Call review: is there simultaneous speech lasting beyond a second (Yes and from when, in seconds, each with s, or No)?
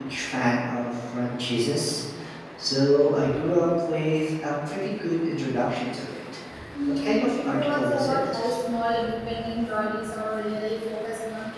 Yes, from 6.9 s